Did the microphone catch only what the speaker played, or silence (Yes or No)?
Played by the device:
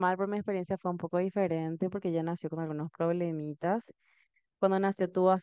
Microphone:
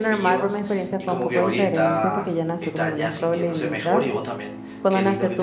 No